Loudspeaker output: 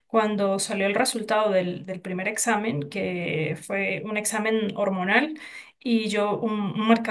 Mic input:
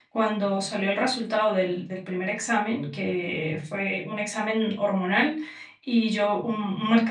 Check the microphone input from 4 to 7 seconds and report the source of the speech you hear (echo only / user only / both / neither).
echo only